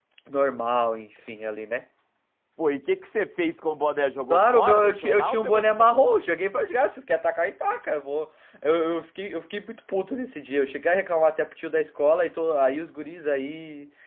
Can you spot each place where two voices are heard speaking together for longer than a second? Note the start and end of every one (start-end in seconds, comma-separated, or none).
4.3-6.0